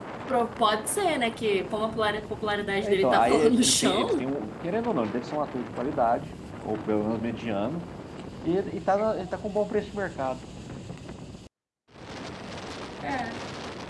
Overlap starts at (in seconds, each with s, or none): 2.8 s